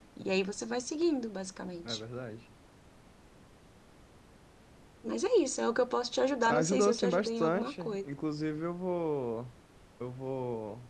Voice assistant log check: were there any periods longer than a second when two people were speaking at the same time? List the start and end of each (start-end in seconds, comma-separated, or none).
6.5-8.1